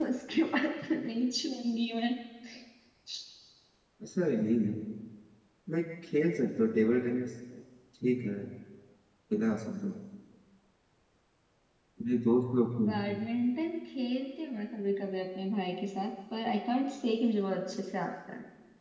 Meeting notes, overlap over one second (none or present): none